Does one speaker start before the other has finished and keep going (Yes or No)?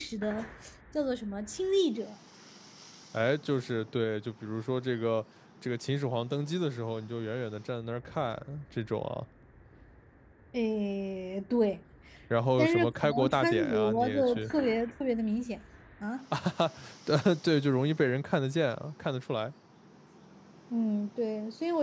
Yes